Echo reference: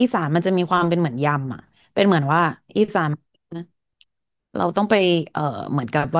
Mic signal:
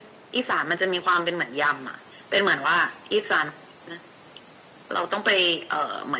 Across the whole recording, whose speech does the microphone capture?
echo only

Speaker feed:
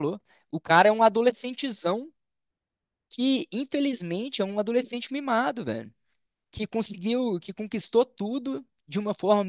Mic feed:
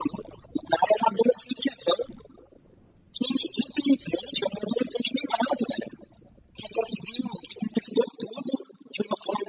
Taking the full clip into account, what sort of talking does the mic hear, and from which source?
echo only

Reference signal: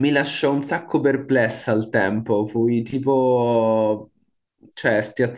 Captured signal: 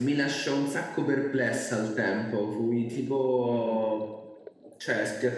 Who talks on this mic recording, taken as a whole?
both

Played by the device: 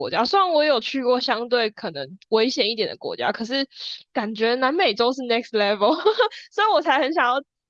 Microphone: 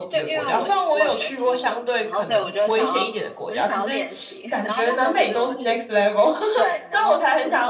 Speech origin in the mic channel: both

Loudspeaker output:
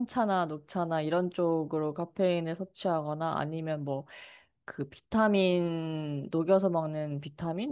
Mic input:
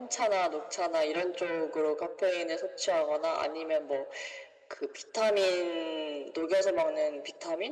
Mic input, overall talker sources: echo only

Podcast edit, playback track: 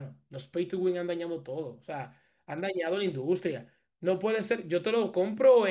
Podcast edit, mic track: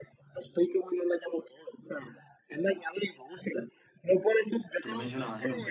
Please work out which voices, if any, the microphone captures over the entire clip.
both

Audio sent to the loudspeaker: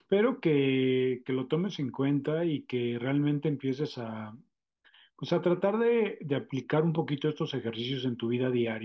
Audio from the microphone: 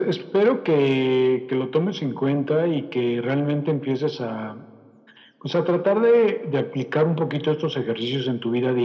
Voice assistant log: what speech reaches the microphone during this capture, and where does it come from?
echo only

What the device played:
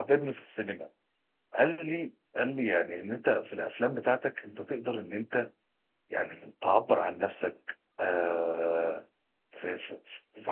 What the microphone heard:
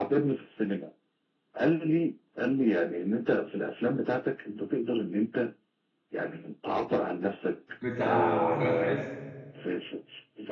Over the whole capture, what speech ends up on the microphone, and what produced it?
both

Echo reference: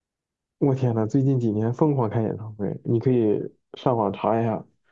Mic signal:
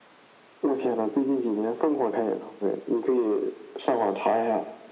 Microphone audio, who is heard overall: echo only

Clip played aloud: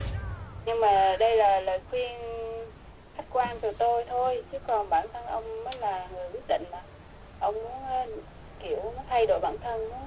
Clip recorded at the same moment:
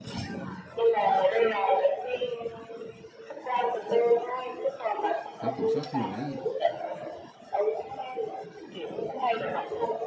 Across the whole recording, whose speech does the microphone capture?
both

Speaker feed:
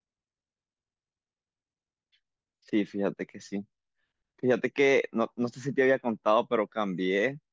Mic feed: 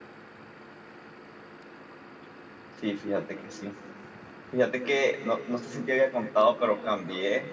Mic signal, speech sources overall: echo only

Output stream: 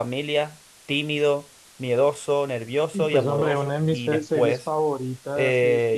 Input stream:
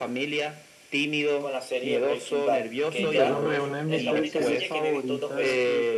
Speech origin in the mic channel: both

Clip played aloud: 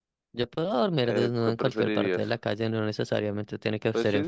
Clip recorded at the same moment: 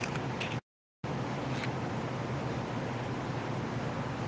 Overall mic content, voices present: neither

